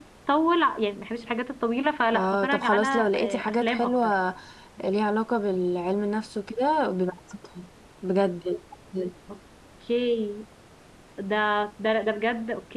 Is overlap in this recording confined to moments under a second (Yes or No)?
No